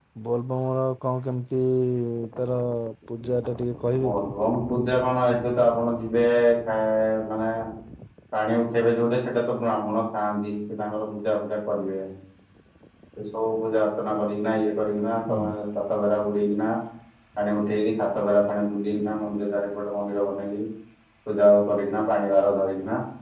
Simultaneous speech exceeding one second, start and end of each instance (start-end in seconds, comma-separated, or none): none